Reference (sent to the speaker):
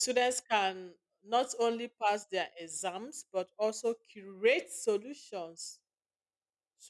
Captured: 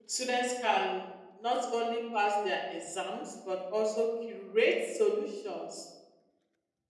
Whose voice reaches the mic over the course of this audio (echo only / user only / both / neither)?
echo only